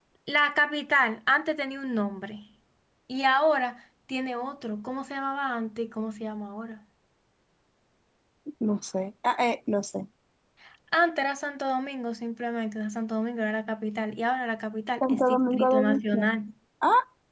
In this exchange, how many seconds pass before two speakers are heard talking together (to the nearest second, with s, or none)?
15 s